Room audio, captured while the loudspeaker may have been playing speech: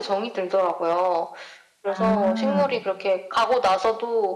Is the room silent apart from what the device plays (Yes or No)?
No